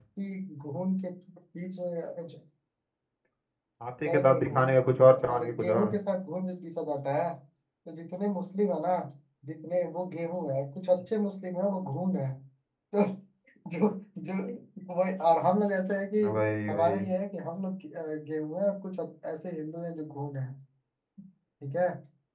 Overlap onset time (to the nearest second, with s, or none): 4 s